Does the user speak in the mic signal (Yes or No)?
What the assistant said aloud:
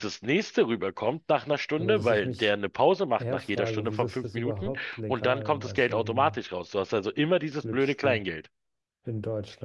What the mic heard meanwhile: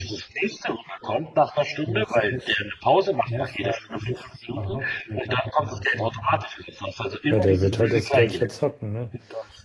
Yes